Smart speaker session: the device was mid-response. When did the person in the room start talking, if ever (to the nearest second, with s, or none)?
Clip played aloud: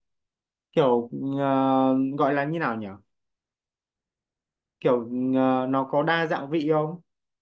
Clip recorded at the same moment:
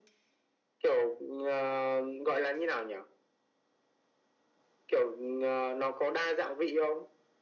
none